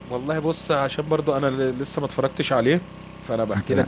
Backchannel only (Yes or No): Yes